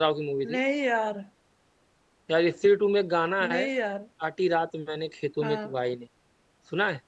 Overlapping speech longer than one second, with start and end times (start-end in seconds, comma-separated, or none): none